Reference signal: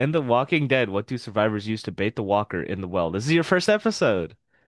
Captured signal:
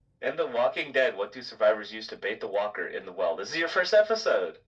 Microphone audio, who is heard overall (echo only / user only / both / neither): echo only